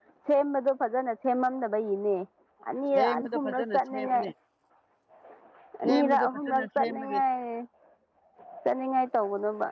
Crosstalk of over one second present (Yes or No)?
Yes